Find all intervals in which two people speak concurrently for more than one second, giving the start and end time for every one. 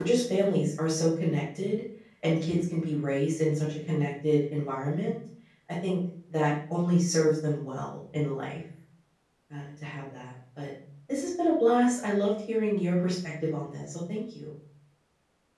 none

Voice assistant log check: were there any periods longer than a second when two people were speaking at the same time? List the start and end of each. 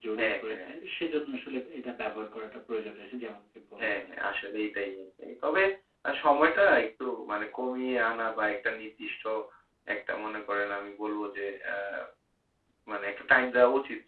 none

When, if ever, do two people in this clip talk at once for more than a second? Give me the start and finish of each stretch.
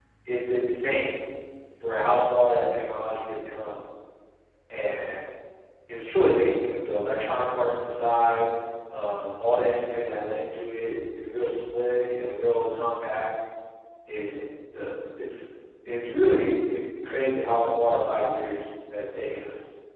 none

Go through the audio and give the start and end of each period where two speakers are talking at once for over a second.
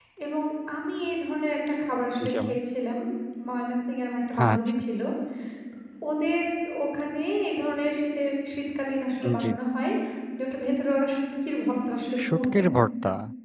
none

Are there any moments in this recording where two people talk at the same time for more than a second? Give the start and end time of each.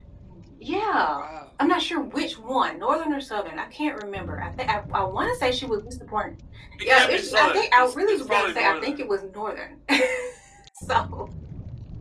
6.8-8.9

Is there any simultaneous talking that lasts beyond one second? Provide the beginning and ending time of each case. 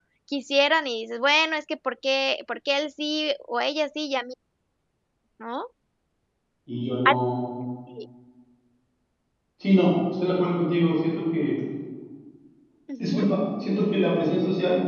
none

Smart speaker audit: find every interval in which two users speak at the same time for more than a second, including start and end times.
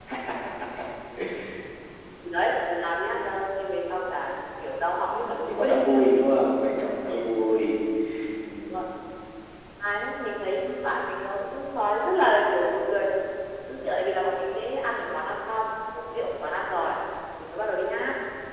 5.0-6.3

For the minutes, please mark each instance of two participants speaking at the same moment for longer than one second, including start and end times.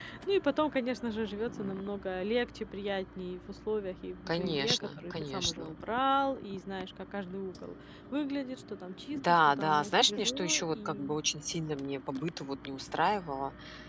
4.3-5.7, 9.1-11.2

